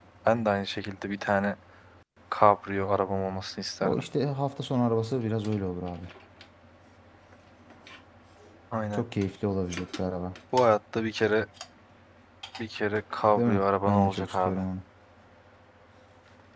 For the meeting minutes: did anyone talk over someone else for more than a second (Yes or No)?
Yes